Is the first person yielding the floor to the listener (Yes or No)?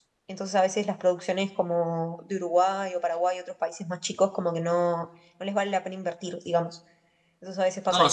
Yes